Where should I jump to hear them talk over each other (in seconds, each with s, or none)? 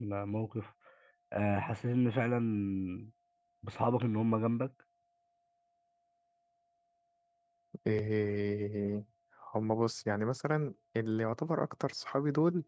none